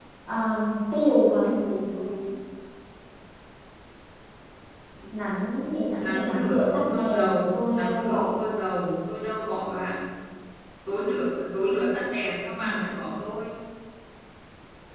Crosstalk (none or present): present